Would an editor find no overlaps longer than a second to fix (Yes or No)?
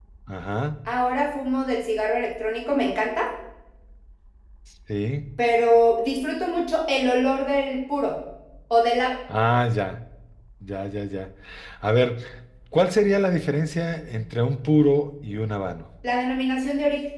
Yes